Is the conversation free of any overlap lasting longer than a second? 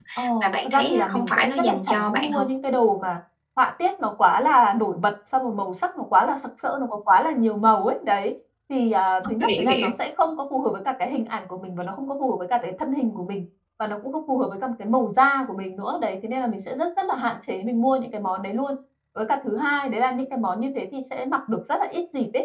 No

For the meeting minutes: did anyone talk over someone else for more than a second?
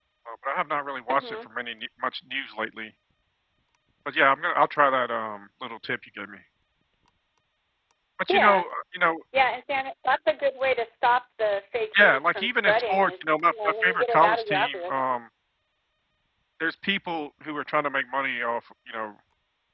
Yes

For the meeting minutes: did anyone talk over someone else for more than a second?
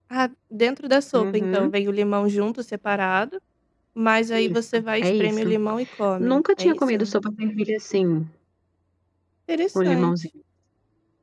Yes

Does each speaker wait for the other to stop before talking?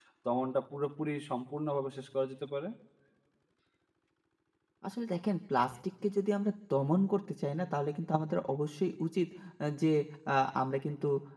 Yes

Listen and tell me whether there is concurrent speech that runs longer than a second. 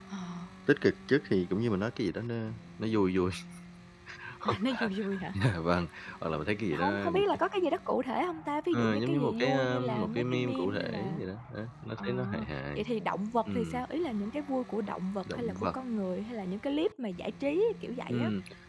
Yes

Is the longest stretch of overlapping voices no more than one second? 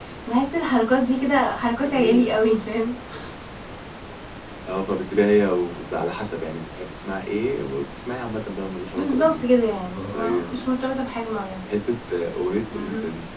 Yes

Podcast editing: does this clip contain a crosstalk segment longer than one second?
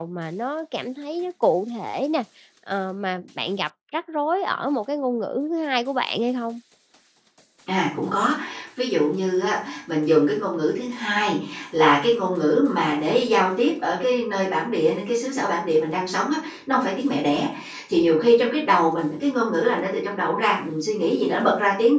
No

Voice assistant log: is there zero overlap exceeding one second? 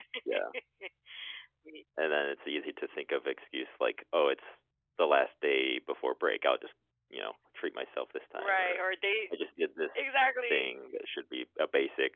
Yes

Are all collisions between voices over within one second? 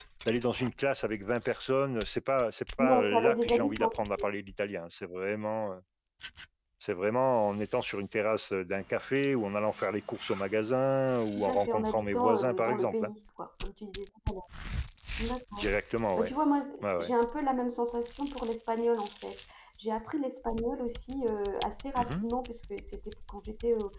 No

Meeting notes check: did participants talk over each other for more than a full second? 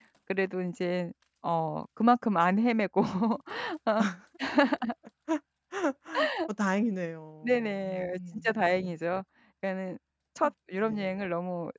Yes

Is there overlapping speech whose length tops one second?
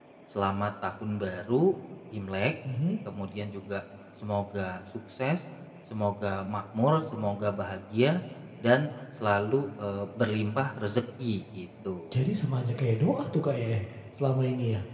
No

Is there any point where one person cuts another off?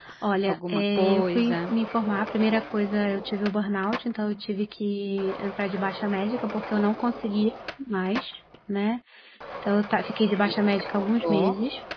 Yes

